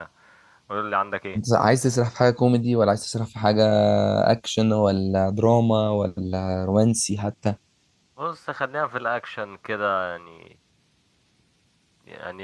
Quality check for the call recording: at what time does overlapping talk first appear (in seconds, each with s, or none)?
none